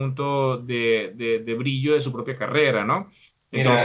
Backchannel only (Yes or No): No